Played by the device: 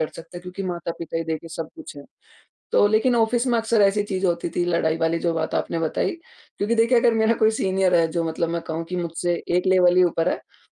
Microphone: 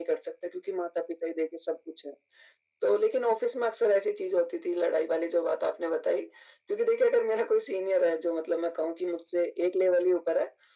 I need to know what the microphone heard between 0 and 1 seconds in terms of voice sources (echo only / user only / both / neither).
echo only